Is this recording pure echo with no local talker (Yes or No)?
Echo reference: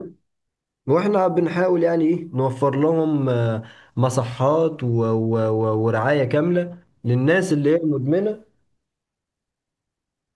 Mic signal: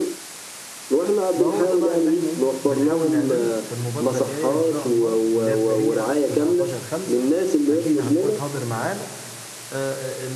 No